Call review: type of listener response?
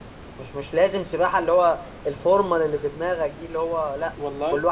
listening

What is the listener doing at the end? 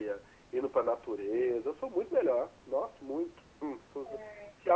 listening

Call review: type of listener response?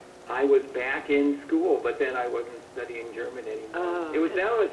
listening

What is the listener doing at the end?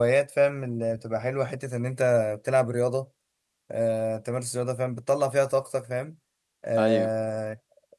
listening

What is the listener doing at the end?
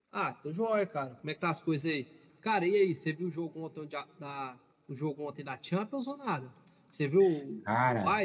taking over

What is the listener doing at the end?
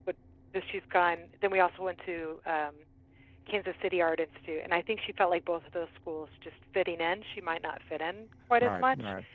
taking over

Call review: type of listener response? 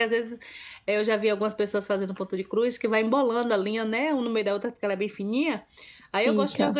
listening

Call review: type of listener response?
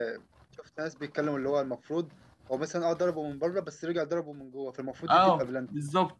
taking over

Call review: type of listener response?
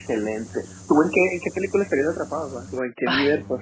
taking over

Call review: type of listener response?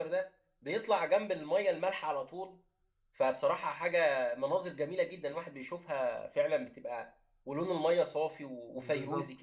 taking over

